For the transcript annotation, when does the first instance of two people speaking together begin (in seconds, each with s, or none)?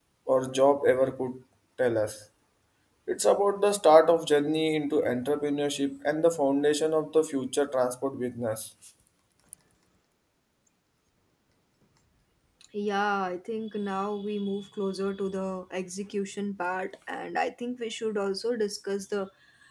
none